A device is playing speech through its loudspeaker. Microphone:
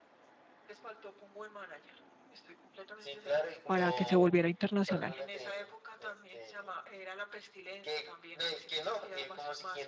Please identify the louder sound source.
user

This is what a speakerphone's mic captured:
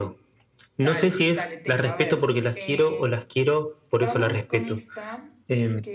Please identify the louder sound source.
echo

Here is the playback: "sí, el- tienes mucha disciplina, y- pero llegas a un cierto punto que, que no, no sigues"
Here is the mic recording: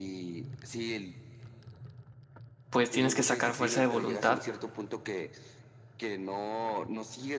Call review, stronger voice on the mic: user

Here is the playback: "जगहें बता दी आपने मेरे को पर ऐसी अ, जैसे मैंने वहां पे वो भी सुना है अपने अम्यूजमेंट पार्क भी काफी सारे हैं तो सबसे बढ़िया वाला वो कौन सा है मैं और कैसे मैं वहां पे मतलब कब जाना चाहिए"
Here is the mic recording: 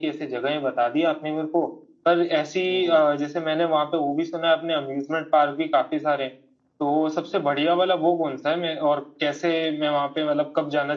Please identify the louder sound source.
echo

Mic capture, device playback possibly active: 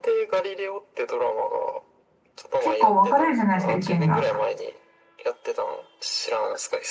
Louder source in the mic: user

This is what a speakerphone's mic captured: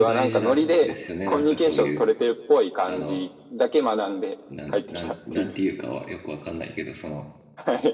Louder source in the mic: echo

